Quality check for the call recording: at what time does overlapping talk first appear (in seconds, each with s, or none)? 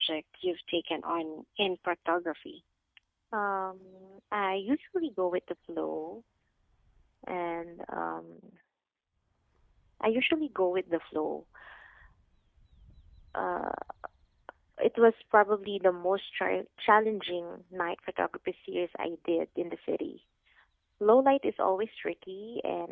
none